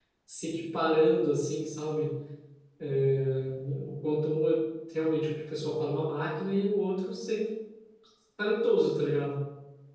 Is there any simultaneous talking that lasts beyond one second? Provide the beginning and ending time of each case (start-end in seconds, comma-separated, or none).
none